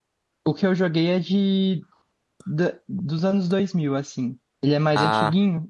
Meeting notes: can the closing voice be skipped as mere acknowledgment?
Yes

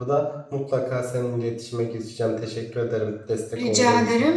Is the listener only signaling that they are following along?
No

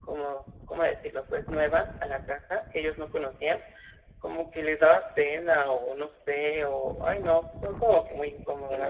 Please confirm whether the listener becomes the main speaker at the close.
Yes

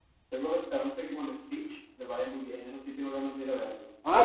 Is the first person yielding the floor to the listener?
Yes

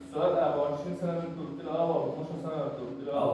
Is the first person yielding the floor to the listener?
Yes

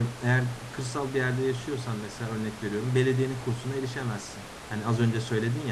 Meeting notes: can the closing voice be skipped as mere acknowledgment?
Yes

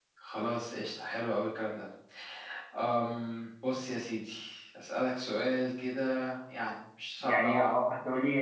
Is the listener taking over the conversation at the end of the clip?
Yes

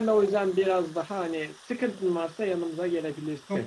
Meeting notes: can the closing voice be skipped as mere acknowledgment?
No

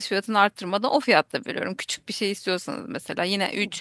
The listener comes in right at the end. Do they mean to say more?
No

